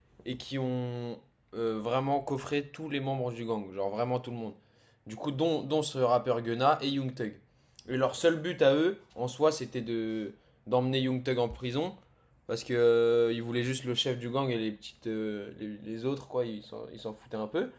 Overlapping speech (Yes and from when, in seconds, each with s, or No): No